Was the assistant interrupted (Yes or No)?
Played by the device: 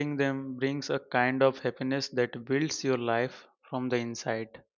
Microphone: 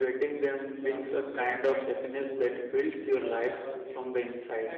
Yes